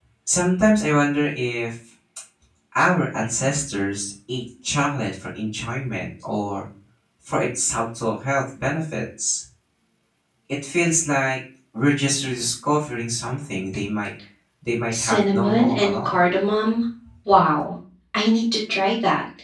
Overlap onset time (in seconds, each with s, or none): 14.9 s